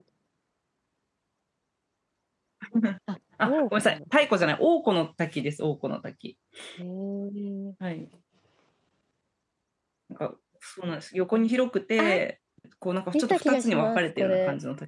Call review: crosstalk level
present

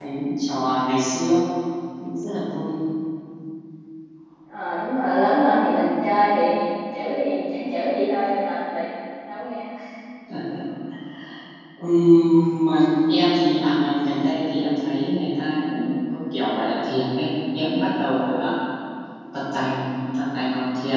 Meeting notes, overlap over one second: none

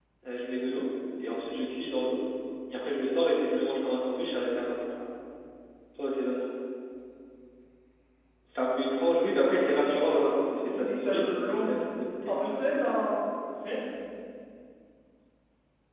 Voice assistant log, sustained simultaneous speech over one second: present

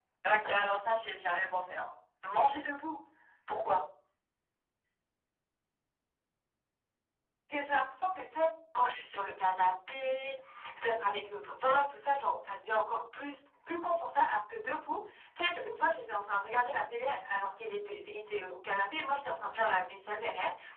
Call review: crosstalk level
none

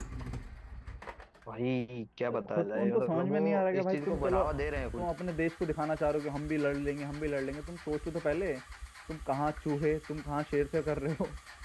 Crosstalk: present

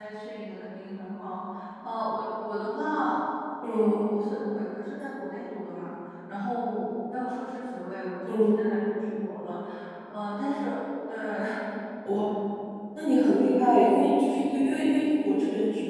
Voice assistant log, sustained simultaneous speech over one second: none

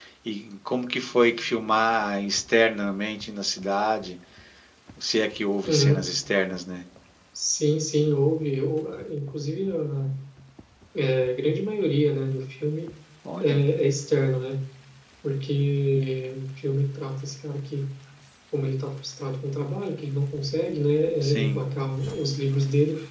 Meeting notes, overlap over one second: none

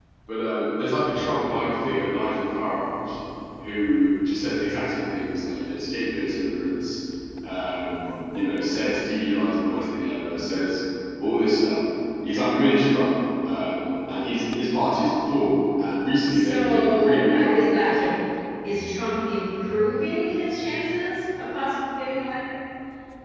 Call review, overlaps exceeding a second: present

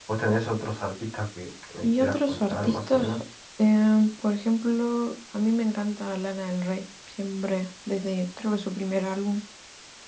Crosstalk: present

